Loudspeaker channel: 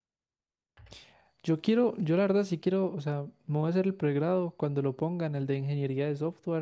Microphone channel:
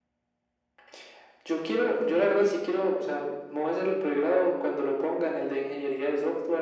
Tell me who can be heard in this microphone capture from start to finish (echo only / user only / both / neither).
echo only